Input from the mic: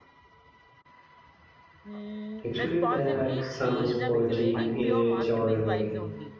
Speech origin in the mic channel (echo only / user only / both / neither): both